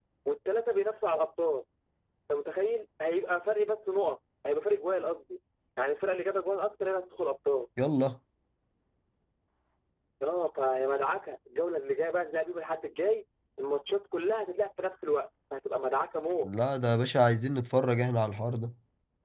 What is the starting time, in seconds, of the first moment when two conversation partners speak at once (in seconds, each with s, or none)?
none